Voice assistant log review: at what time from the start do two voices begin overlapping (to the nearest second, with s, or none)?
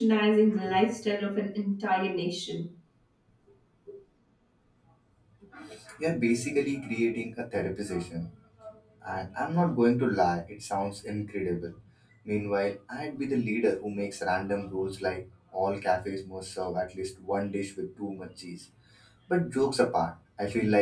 none